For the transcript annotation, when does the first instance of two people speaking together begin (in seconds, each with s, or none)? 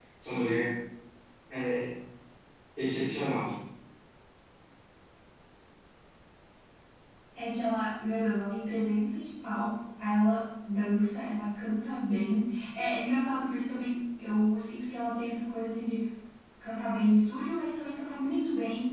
none